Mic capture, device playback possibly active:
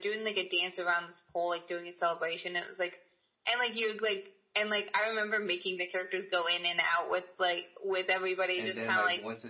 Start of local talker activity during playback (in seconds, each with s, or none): 8.6 s